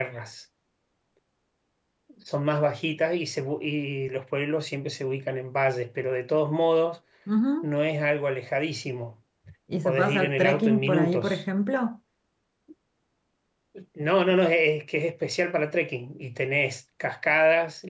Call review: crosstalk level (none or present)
present